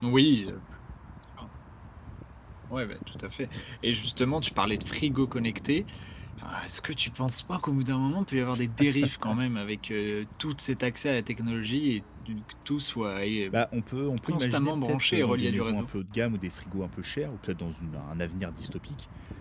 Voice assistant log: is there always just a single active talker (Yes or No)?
No